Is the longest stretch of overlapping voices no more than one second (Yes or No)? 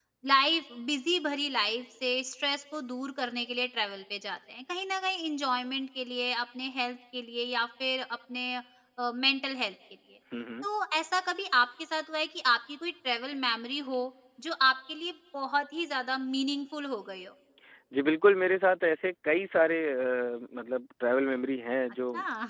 Yes